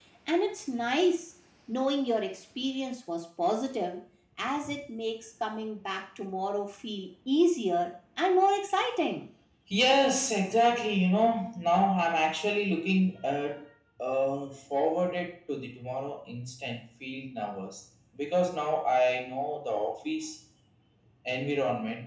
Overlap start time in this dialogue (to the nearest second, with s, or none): none